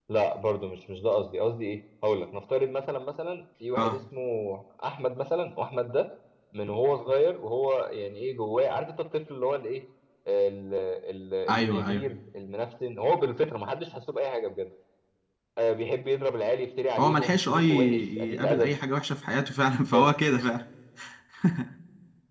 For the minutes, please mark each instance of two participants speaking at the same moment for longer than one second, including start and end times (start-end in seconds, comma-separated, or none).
17.0-18.7